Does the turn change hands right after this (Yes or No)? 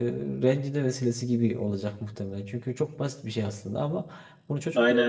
No